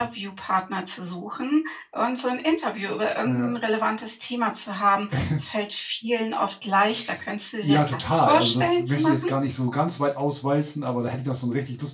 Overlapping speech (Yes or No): Yes